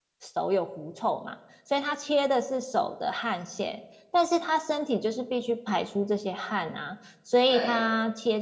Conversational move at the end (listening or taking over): listening